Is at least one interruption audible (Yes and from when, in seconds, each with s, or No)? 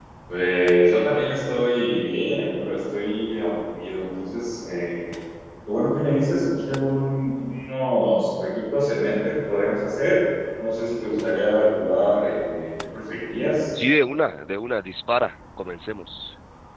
No